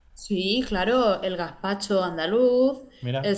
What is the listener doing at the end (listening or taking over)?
listening